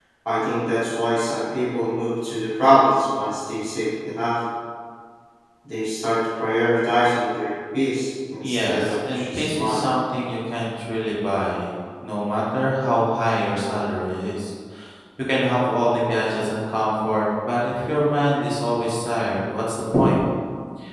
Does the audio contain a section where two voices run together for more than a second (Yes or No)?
Yes